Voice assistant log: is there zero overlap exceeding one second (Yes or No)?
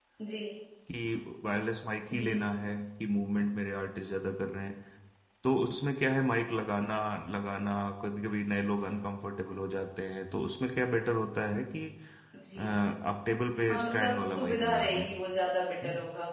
No